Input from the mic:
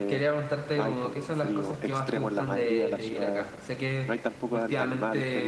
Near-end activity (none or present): present